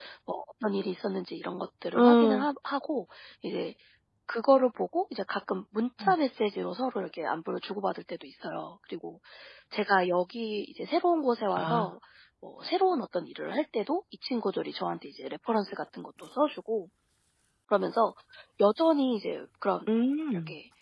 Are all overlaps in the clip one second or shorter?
Yes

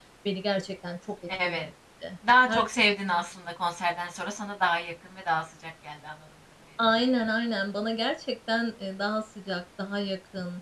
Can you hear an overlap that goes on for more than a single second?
No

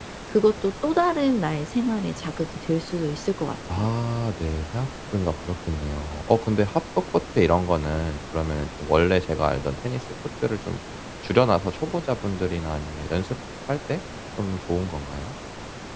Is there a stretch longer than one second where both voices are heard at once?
No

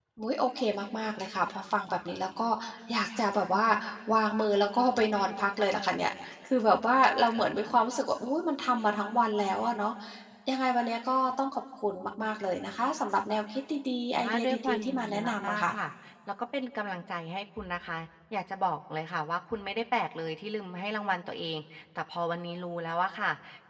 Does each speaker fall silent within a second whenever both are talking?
No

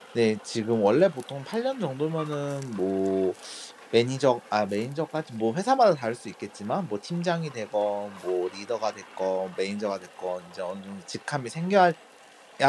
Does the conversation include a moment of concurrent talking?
No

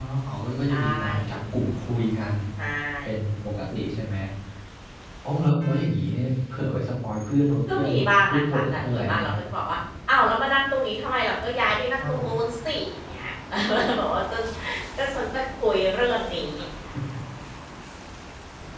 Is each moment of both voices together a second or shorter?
No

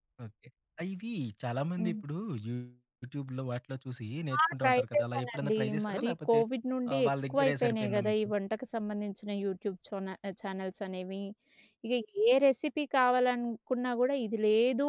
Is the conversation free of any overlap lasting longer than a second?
No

